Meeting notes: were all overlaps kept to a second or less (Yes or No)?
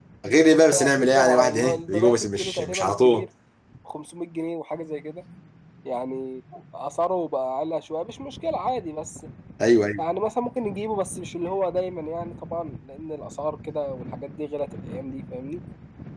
No